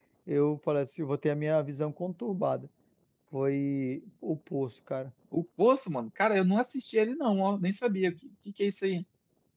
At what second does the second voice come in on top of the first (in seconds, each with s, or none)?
none